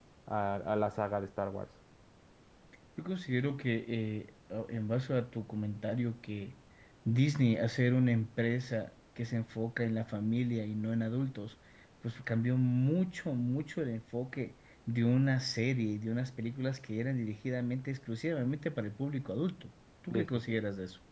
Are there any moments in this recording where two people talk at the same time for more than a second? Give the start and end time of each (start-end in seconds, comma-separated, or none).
none